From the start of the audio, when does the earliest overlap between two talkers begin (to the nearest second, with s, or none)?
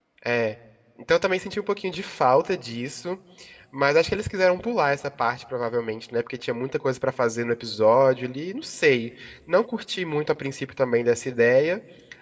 none